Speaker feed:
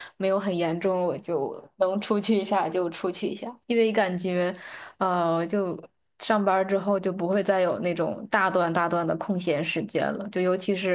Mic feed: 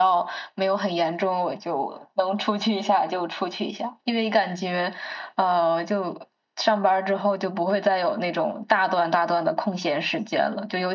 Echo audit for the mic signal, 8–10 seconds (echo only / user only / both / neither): echo only